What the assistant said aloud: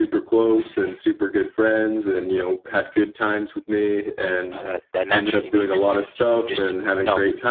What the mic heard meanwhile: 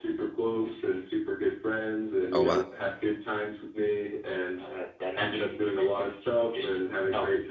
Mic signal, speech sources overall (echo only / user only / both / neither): both